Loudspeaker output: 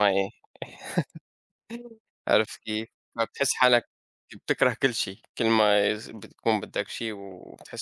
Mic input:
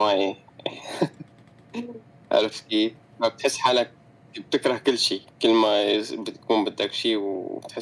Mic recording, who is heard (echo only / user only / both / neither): echo only